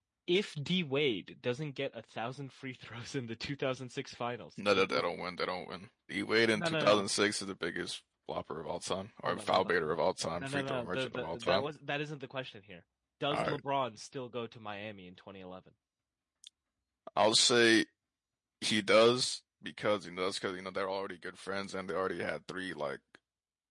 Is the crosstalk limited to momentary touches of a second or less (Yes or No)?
No